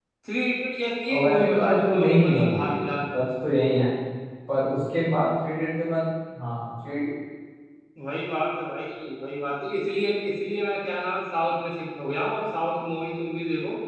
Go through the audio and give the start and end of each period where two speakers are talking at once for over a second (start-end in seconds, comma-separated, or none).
1.2-2.8